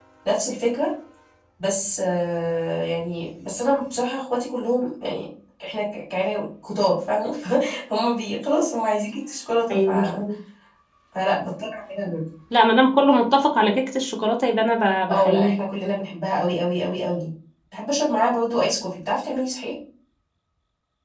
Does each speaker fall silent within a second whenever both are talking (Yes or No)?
Yes